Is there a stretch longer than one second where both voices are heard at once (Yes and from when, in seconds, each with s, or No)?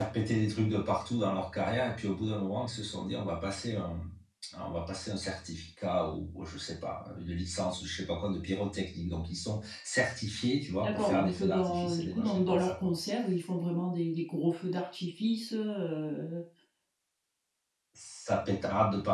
Yes, from 10.8 s